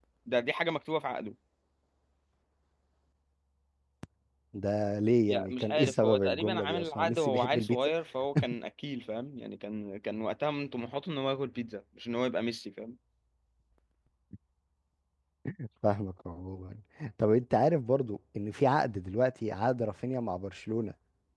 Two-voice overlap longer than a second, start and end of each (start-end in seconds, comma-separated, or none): 5.3-7.8